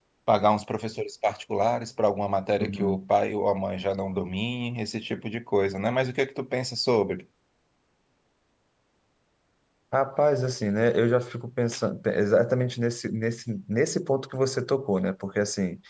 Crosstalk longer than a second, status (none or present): none